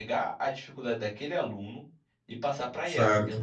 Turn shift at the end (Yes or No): No